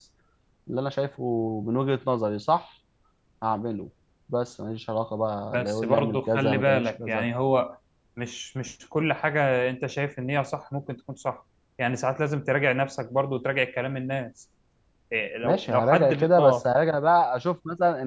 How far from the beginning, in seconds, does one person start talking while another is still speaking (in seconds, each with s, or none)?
5.5 s